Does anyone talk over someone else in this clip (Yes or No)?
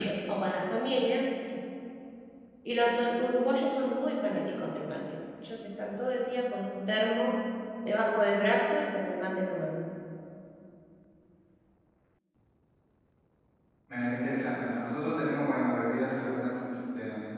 No